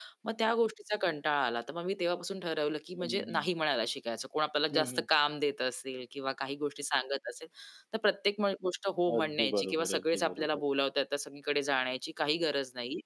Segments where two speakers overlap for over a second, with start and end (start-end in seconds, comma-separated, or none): 9.2-10.6